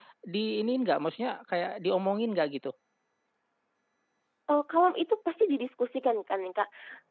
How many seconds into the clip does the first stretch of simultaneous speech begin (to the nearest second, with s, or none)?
none